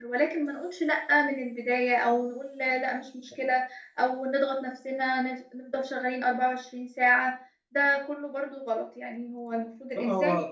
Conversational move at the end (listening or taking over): listening